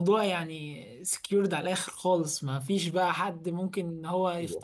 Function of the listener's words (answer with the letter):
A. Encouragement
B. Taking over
B